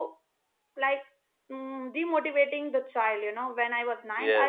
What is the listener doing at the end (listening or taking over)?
listening